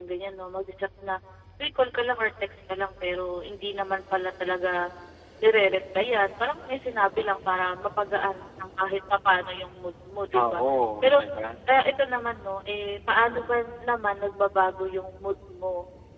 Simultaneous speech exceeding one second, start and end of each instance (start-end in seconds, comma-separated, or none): none